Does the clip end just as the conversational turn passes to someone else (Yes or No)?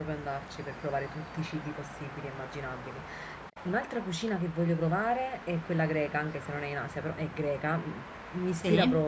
No